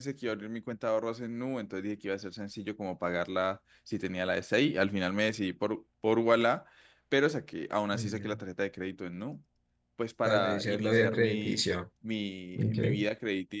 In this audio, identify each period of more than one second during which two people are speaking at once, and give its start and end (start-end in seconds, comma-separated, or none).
10.2-11.6